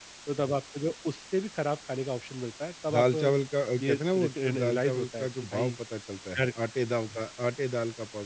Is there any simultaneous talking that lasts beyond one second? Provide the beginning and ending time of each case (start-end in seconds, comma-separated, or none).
3.8-5.7